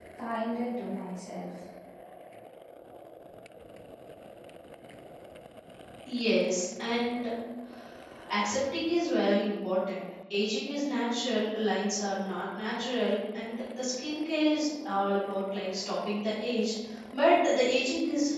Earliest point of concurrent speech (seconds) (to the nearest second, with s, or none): none